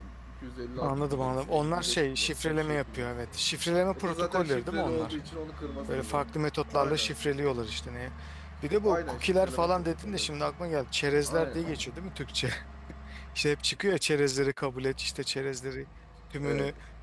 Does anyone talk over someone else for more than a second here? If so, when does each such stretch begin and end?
0.8-3.1, 3.9-5.2, 8.8-10.3

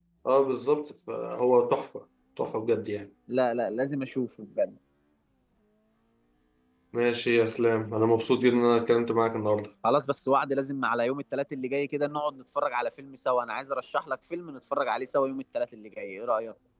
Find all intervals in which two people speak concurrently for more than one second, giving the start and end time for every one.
none

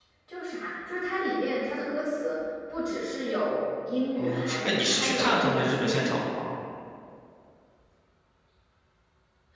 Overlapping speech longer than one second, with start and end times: 4.2-6.2

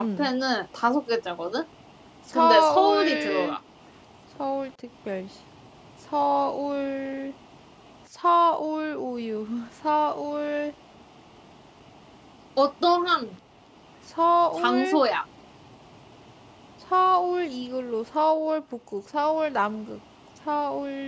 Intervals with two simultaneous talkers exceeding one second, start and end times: 2.3-3.5

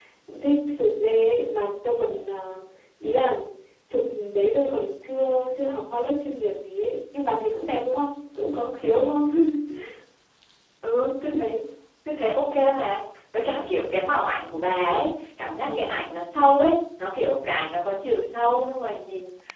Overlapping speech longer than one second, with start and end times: none

